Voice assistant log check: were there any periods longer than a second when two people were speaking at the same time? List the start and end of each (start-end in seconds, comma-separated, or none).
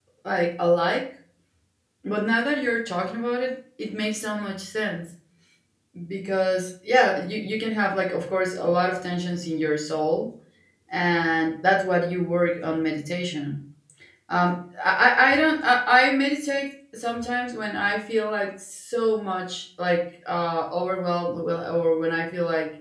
none